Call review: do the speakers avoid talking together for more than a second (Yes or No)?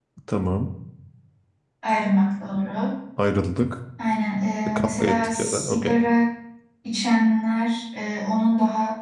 No